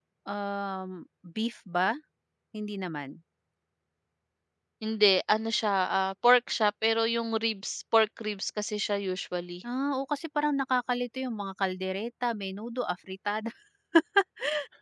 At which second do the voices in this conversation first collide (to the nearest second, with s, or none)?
none